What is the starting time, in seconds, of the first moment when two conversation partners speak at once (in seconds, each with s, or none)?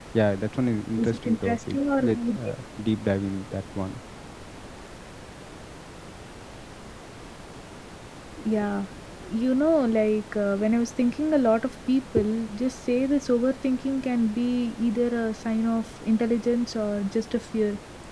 1.0 s